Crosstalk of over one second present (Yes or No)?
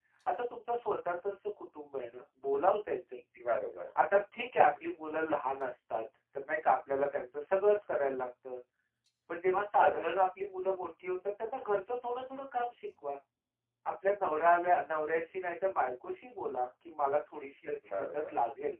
No